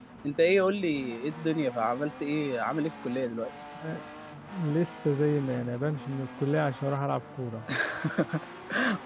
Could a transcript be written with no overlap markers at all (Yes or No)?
Yes